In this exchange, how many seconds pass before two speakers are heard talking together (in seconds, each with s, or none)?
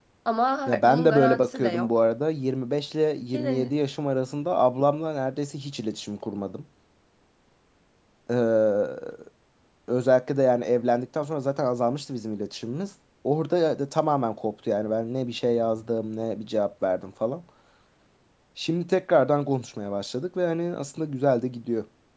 0.7 s